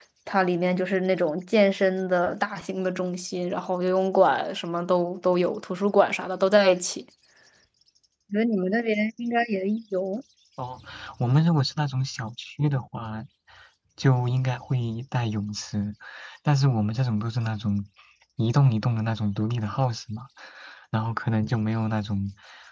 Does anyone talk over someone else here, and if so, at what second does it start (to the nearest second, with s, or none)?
none